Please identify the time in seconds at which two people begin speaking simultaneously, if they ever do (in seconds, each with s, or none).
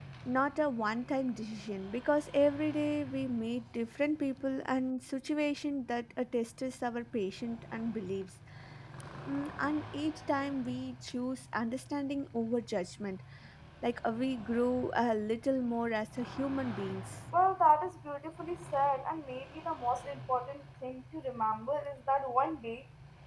none